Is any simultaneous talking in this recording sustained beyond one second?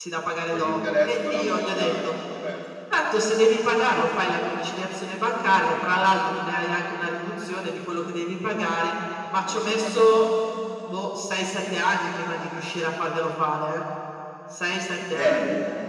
Yes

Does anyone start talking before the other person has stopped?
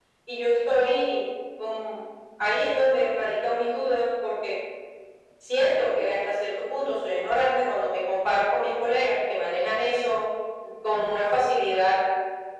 No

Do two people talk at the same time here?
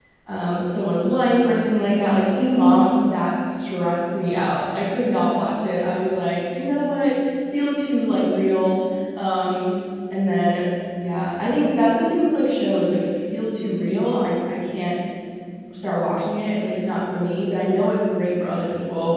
No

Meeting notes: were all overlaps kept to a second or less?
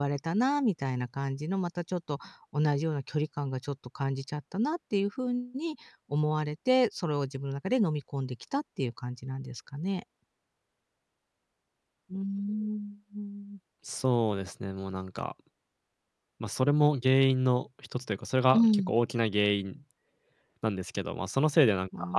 Yes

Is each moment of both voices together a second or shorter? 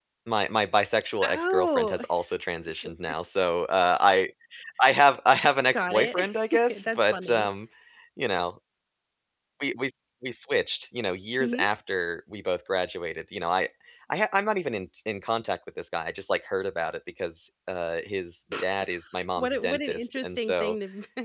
No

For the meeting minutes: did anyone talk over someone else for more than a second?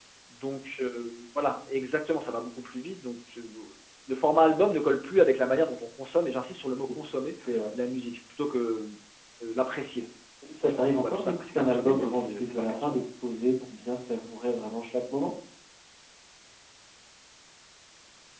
Yes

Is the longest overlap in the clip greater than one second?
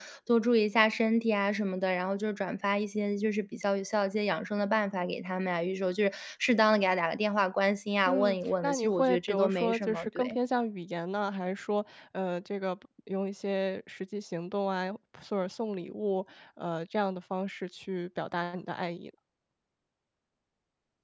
Yes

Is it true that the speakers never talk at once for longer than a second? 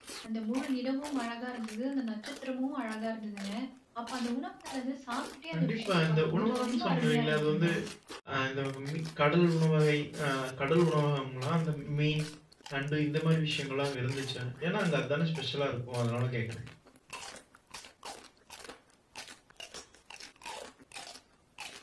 No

